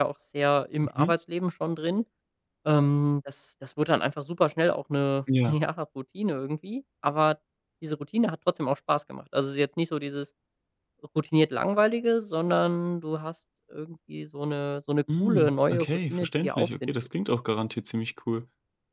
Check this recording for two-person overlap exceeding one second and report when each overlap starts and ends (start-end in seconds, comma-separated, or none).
15.2-16.9